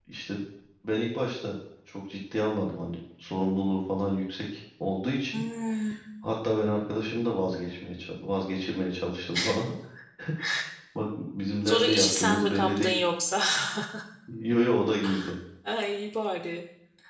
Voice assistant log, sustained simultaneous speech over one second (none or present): present